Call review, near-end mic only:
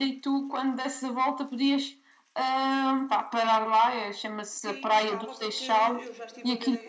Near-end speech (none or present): present